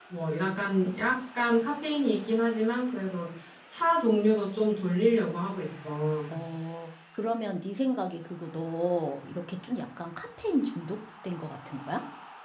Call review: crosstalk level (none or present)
none